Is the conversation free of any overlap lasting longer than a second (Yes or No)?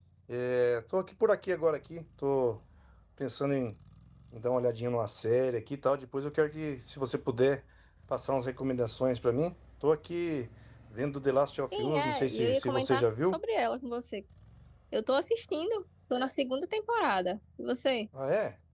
No